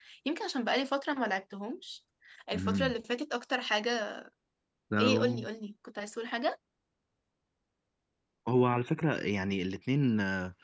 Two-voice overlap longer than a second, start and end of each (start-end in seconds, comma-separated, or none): none